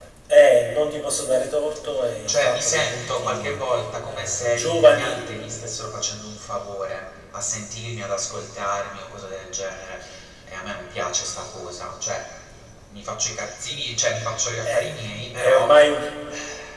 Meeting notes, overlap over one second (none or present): present